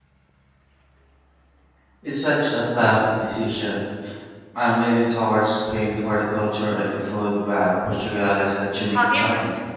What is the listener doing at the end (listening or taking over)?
taking over